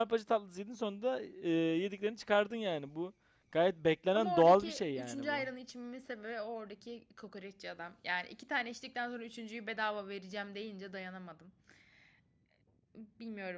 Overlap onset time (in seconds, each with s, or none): 4.2 s